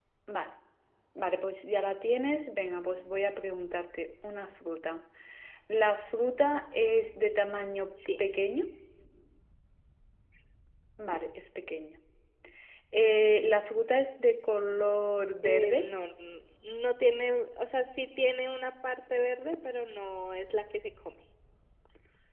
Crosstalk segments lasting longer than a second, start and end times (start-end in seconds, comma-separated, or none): none